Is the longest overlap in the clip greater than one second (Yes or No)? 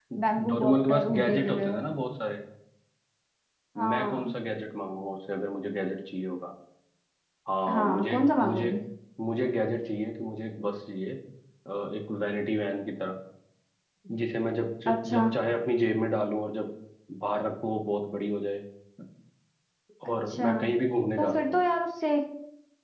Yes